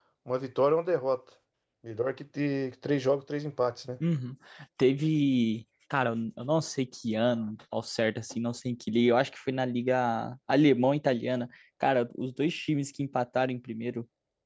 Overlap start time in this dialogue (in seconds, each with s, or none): none